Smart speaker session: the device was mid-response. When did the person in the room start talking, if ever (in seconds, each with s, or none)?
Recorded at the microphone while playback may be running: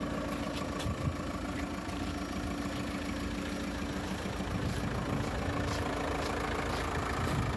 none